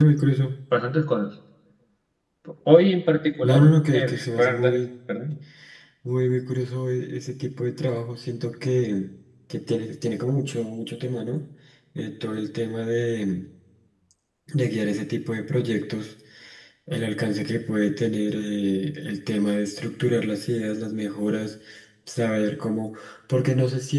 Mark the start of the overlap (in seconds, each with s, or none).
3.4 s